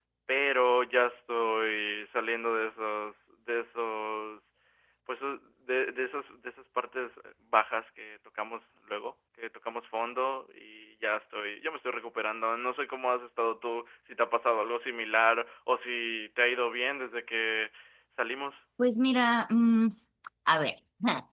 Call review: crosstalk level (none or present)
none